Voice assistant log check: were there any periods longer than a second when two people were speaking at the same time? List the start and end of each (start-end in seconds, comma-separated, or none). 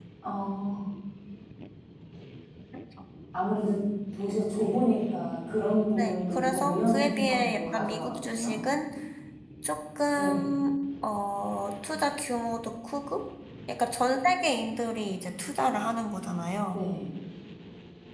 6.0-8.6